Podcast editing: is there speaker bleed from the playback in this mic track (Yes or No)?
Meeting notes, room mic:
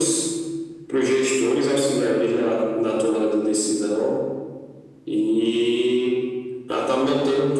Yes